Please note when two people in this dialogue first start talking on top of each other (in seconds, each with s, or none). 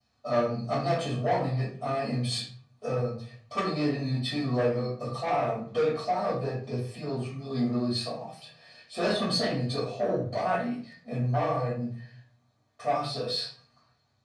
none